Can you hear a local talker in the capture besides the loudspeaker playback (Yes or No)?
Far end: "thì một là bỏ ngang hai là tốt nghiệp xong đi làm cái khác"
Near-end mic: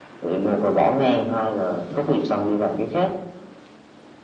No